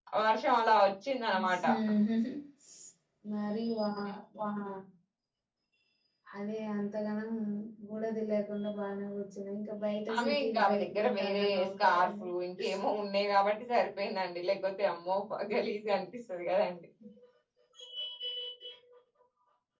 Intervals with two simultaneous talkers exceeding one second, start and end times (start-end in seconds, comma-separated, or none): 10.2-12.2